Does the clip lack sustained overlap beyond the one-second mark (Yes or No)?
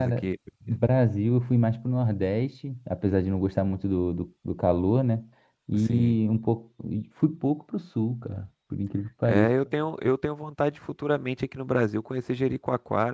Yes